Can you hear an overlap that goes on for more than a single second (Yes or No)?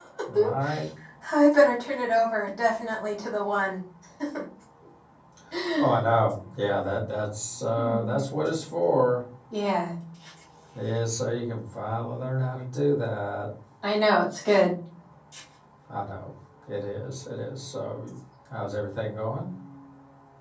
No